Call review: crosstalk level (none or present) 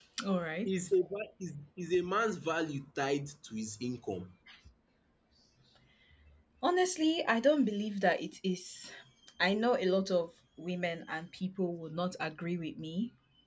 none